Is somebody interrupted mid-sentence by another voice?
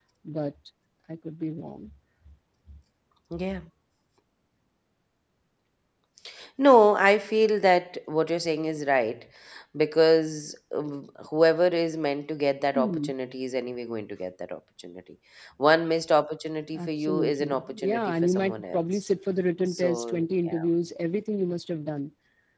Yes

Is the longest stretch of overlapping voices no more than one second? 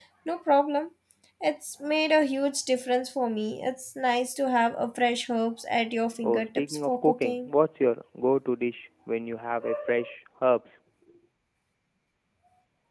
No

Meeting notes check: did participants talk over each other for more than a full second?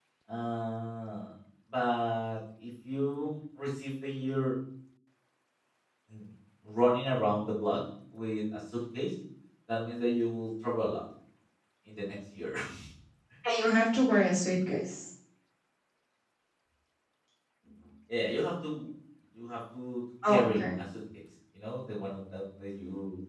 No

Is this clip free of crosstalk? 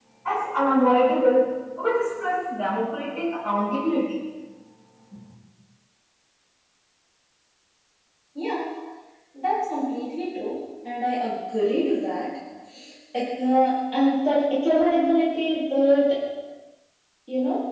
Yes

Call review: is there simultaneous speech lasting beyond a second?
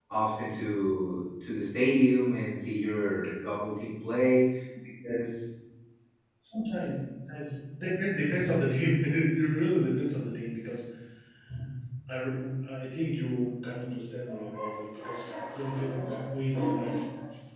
No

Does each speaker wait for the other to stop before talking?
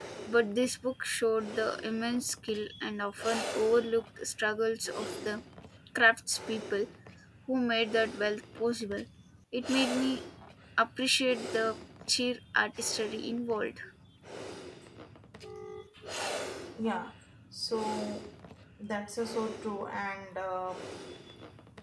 Yes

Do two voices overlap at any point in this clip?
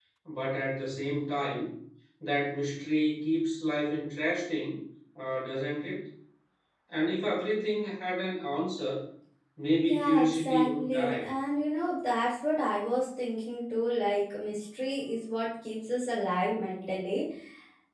Yes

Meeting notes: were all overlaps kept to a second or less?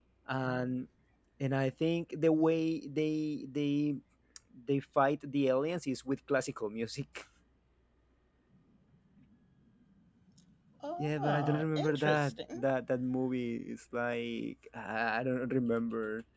No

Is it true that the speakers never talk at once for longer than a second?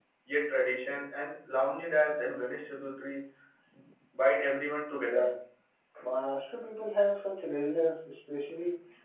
Yes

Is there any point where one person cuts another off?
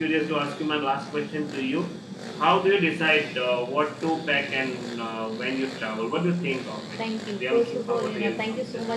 Yes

